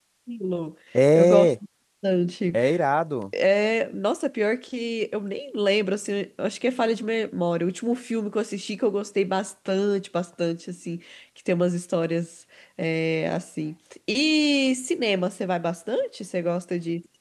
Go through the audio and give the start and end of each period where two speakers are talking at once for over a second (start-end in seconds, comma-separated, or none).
none